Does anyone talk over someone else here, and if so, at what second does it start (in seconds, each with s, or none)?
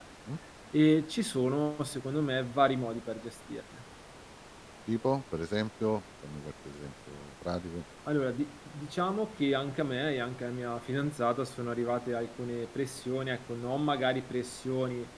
none